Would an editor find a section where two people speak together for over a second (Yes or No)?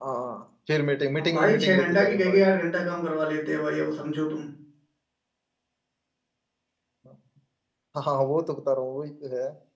Yes